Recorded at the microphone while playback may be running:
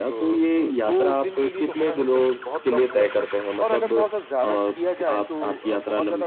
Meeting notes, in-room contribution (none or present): none